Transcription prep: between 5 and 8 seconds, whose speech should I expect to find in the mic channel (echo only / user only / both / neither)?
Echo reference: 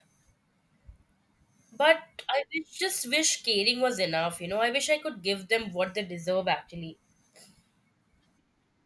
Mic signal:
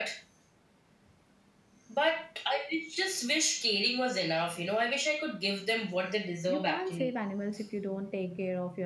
both